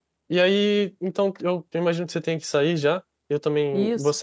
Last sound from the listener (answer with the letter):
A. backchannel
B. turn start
A